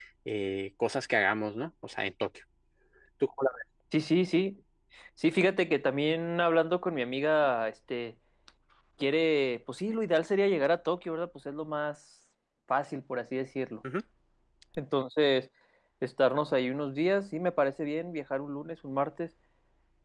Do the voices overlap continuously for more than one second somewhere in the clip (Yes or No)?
No